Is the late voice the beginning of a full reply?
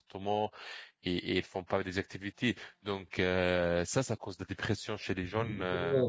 Yes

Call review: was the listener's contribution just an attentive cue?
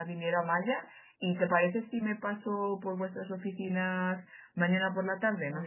No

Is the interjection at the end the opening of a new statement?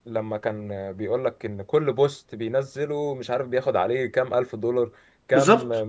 No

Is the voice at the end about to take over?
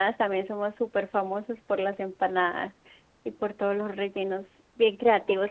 No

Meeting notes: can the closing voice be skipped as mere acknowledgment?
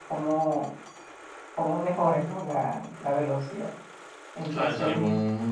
No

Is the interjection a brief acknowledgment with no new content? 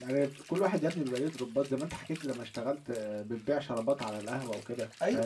No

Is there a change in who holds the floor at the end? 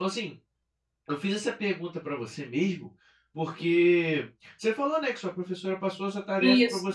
No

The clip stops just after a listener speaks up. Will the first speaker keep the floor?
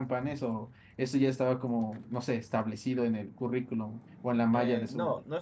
No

